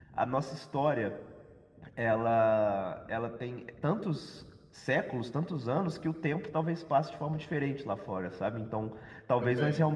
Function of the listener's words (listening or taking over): listening